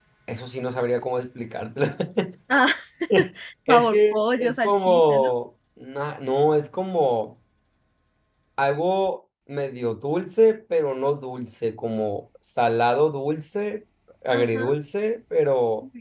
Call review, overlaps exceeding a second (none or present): present